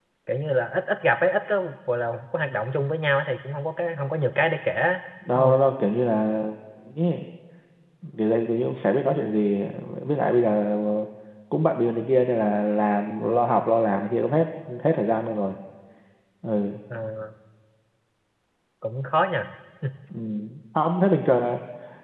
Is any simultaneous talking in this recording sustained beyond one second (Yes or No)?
No